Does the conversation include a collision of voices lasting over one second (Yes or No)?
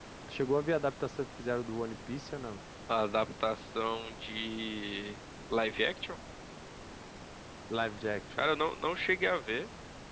No